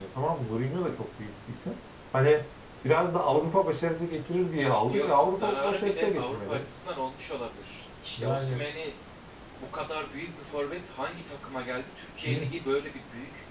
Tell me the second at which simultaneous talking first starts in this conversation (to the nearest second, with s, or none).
5 s